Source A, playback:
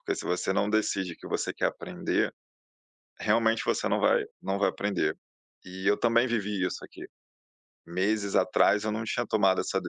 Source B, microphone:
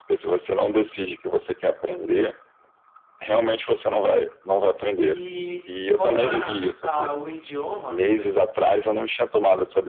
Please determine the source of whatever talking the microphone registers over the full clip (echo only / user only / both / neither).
both